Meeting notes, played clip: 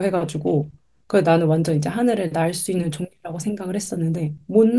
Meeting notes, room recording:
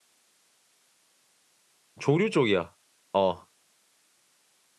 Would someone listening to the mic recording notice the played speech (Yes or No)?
No